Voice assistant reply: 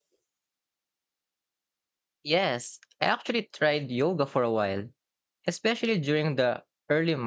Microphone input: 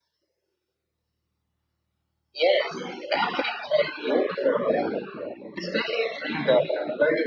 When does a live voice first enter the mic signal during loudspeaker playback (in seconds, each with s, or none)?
none